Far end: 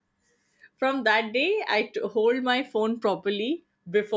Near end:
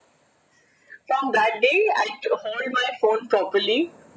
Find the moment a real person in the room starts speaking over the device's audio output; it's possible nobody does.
none

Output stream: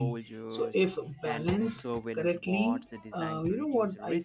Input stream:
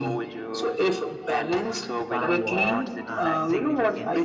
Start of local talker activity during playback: 2.1 s

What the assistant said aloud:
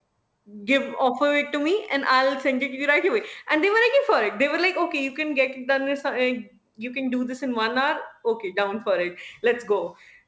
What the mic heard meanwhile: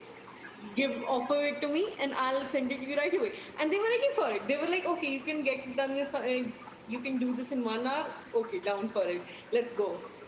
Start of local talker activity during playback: none

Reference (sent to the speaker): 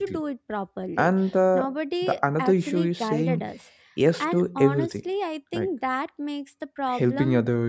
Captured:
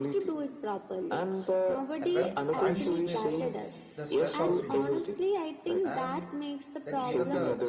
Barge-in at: 2.0 s

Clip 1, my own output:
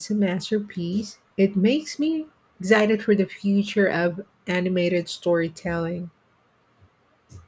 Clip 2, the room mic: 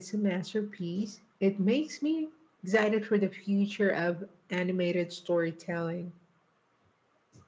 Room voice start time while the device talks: none

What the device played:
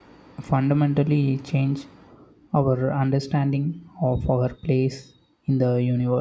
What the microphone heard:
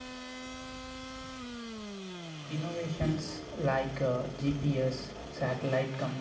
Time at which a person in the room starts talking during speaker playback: 2.5 s

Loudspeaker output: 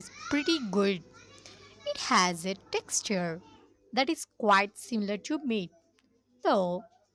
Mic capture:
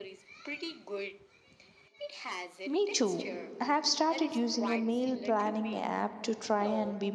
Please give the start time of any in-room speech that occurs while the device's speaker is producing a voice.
2.6 s

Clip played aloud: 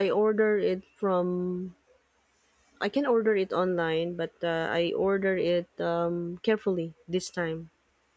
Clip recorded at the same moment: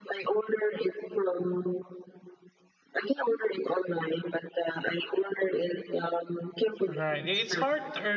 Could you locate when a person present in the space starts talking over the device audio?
6.8 s

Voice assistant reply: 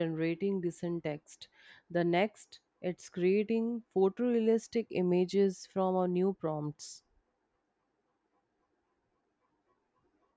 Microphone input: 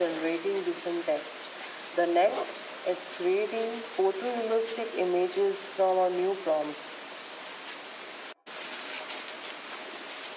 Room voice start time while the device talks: none

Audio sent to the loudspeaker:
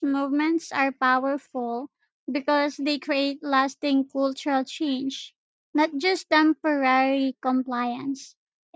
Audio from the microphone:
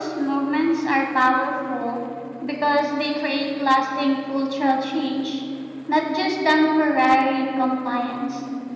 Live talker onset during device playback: none

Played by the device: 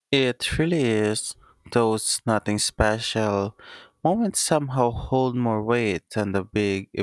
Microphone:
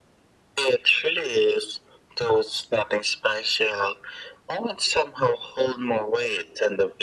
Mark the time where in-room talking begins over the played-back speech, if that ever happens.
none

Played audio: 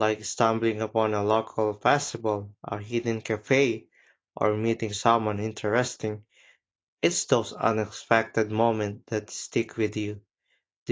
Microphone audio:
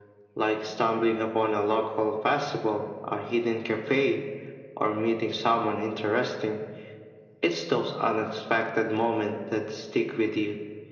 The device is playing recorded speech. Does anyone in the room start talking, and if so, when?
none

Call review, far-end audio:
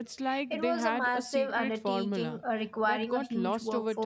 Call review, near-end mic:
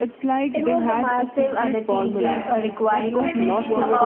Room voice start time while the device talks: 1.9 s

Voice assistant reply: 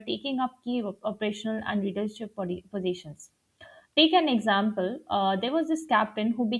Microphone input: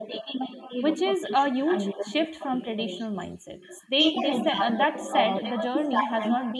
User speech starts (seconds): 0.8 s

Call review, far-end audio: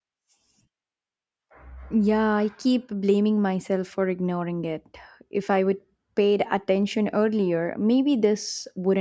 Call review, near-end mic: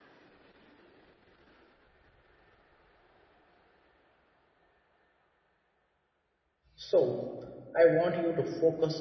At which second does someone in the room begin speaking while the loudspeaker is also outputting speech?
6.8 s

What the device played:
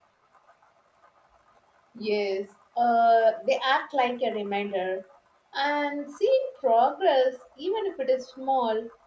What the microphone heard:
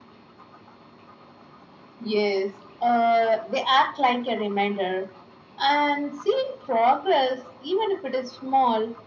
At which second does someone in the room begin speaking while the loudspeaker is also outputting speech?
none

